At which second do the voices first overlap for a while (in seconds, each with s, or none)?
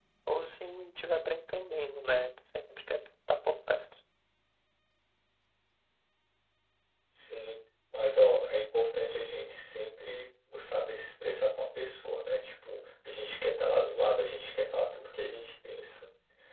none